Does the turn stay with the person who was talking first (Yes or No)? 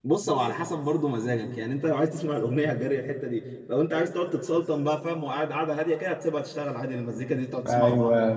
No